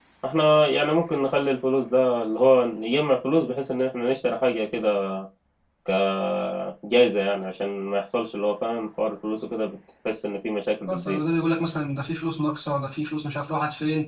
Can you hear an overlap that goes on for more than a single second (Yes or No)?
No